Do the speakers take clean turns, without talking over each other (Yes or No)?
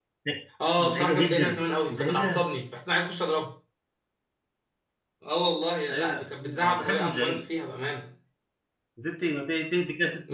No